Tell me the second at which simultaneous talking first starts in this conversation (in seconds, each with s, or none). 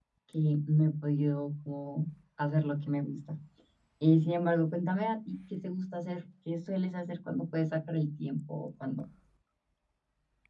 none